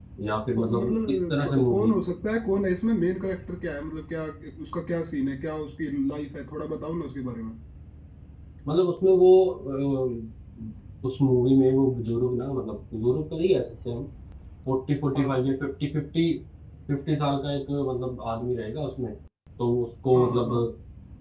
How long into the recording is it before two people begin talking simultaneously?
0.6 s

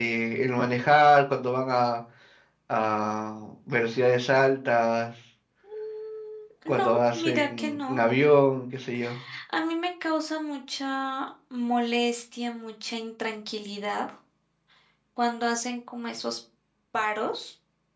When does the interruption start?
6.8 s

